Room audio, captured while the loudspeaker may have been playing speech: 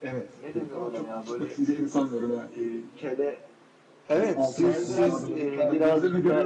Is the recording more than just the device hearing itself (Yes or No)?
Yes